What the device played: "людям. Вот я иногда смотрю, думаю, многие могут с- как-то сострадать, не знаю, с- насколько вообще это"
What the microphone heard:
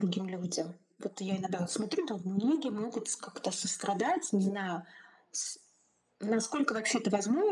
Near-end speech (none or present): none